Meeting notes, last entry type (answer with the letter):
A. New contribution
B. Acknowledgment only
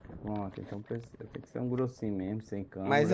A